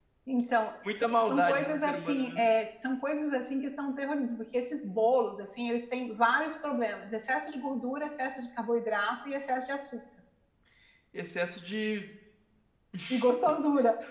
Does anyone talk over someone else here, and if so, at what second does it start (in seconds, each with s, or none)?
0.9 s